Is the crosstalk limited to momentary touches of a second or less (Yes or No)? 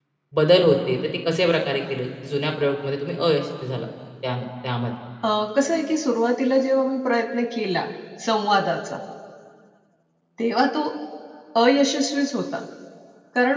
Yes